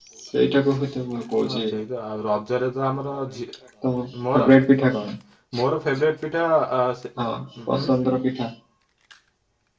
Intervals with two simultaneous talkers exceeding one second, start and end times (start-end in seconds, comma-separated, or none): none